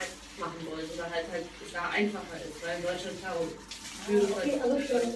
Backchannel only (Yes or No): No